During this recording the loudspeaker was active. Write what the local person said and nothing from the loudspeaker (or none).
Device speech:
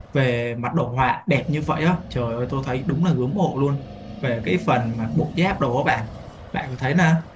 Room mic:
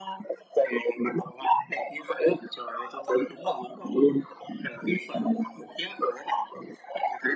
none